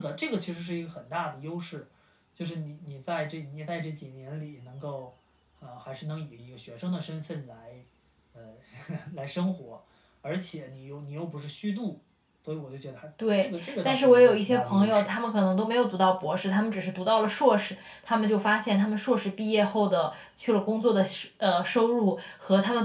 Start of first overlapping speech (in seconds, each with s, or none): 13.2 s